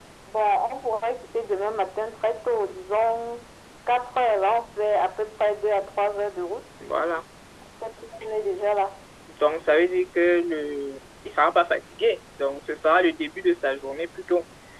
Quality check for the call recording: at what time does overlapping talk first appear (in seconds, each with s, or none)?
none